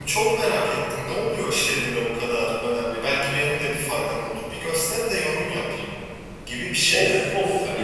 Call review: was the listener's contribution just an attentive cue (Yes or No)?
No